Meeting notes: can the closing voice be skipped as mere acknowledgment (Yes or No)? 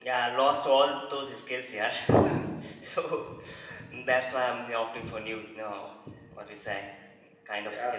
No